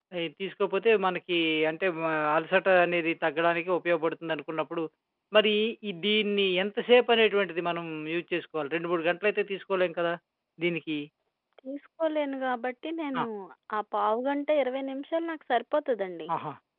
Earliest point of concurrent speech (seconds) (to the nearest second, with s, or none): none